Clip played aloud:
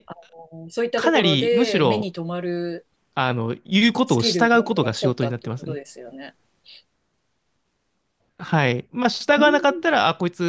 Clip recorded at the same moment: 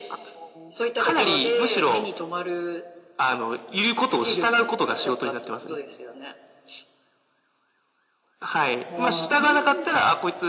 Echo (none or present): present